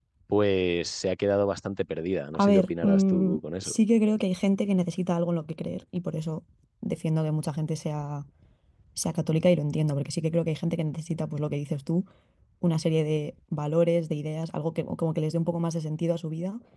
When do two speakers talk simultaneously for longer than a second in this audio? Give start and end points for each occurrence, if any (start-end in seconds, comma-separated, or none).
2.3-3.8